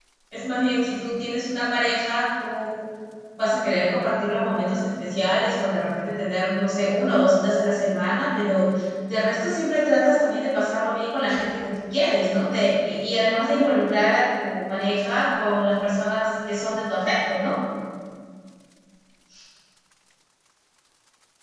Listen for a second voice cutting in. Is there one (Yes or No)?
No